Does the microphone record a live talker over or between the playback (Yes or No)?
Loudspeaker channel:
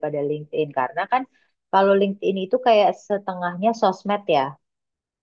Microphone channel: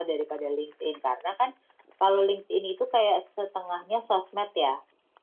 No